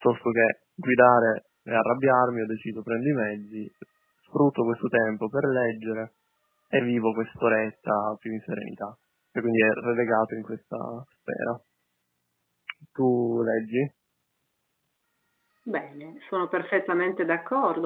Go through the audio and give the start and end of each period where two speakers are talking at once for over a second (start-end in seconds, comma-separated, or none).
none